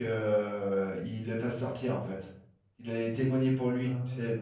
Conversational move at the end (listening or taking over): listening